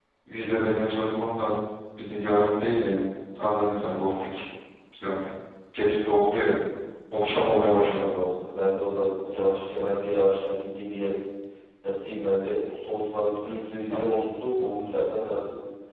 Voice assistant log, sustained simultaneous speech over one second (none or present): none